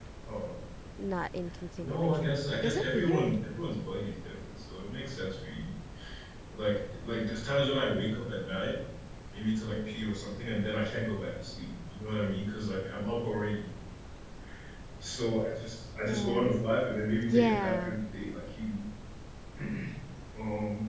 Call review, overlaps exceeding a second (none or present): present